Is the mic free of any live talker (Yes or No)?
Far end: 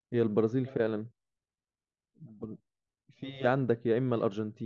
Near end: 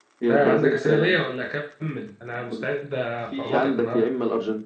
No